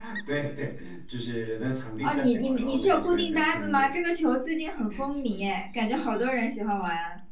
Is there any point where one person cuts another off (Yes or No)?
Yes